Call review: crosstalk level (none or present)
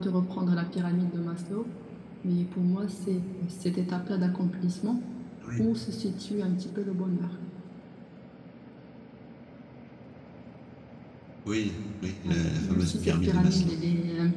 present